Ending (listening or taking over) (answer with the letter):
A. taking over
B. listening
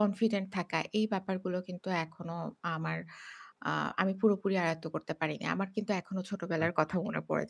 B